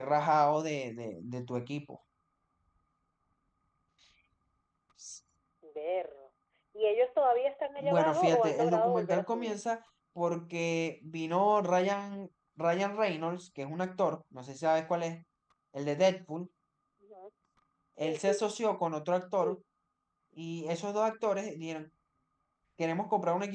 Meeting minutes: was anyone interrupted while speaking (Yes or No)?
Yes